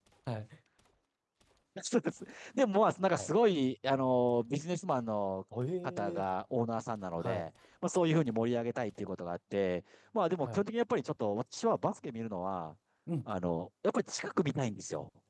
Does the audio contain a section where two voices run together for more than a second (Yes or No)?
No